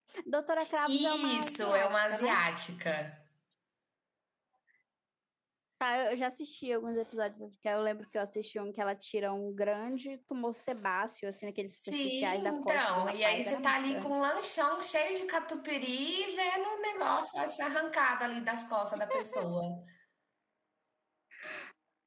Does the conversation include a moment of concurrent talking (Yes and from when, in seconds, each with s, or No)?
Yes, from 0.9 s